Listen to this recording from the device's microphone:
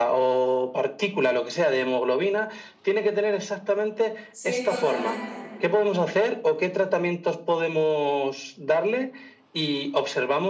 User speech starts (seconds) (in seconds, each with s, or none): 4.3 s